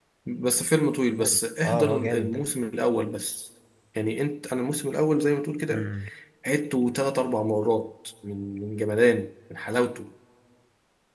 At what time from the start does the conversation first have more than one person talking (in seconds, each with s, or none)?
1.1 s